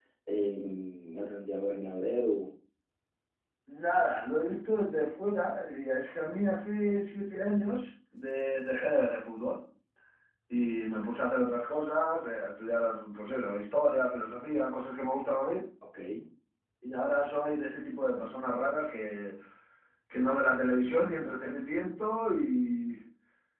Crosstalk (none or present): none